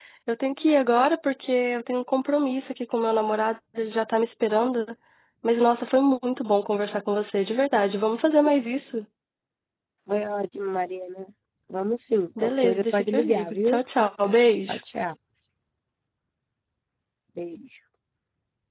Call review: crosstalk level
present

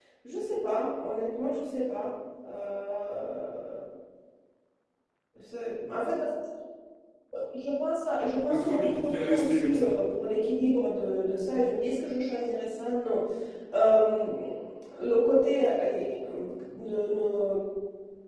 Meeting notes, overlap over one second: present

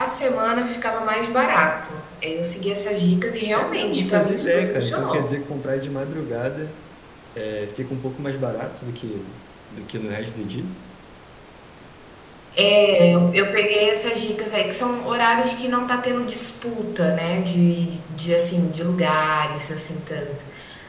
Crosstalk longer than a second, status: present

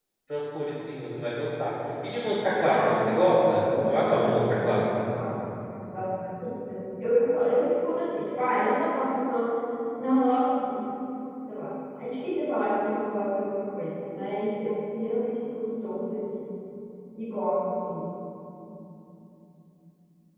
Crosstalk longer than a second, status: present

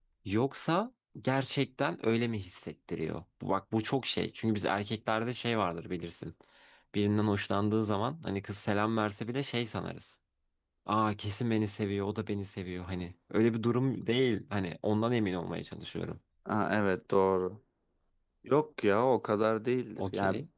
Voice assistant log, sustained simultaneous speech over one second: none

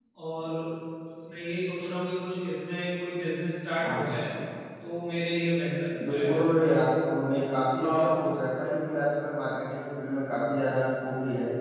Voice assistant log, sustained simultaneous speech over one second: none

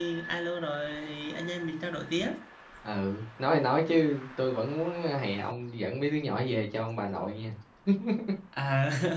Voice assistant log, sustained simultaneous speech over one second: none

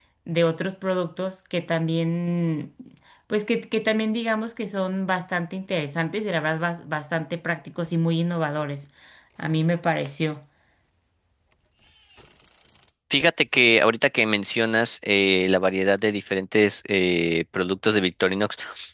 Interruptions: none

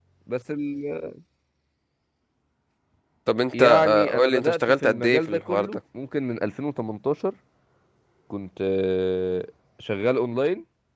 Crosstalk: present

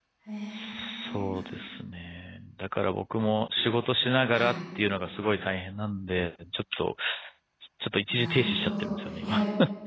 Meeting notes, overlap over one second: present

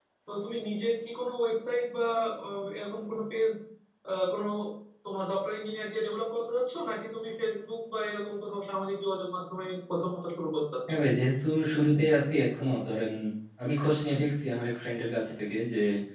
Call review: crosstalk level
none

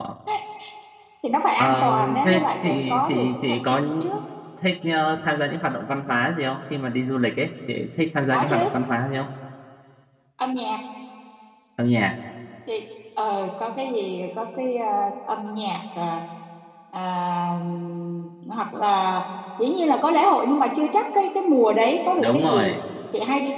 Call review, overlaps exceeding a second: present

